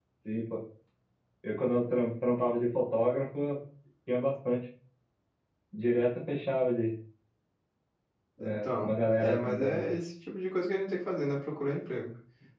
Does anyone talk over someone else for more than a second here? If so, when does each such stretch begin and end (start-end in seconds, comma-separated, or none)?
8.4-9.8